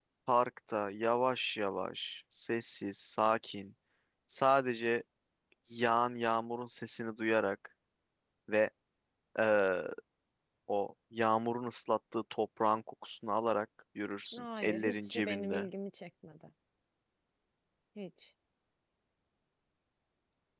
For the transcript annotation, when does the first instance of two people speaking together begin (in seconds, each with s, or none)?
14.3 s